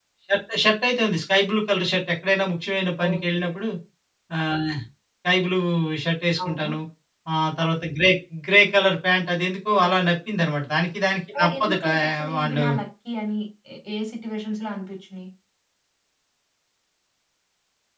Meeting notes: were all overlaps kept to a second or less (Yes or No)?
No